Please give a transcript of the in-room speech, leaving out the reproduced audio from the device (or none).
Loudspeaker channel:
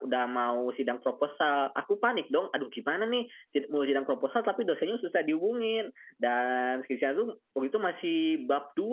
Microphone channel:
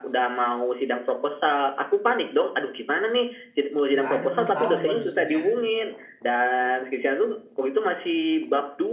nggak ada masalah sama dosennya.